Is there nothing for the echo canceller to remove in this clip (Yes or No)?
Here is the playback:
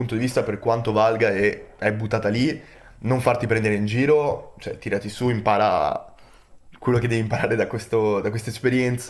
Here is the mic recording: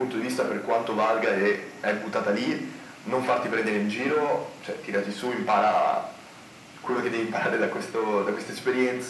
No